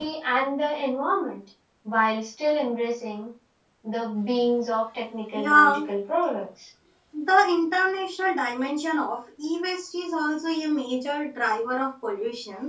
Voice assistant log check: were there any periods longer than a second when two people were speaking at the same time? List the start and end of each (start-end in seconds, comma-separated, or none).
none